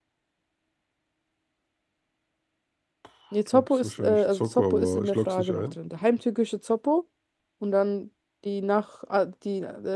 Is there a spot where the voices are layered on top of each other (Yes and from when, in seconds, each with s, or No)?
Yes, from 3.5 s